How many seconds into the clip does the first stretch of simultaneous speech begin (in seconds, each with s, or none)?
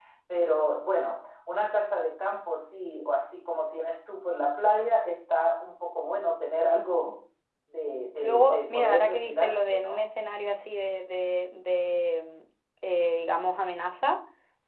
8.2 s